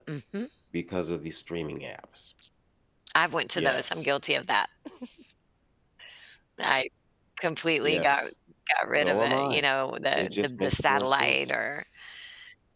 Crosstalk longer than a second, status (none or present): present